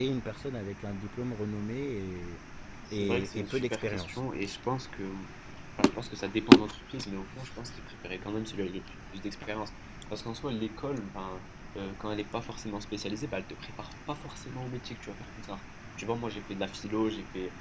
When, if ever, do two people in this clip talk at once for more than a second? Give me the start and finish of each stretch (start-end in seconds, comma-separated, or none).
2.9-4.2